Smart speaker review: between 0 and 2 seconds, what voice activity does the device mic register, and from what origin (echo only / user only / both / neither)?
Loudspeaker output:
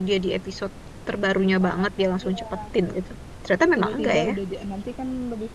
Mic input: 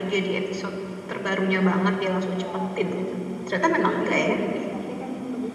echo only